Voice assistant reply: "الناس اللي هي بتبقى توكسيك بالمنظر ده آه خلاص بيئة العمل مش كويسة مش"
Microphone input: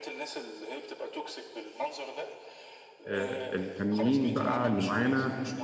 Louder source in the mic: user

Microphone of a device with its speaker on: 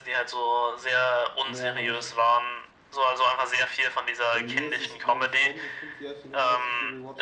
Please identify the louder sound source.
echo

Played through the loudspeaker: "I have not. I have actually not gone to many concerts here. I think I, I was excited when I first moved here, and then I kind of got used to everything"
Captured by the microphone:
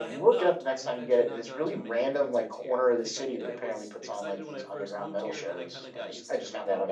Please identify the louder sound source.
user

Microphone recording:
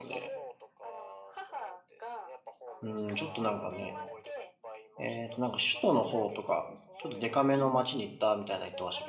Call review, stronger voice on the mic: user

